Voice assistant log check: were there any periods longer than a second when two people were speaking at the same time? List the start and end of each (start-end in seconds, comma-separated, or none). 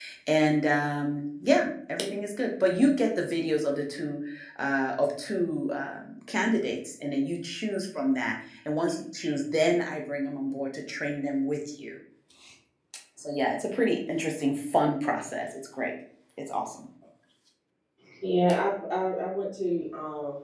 none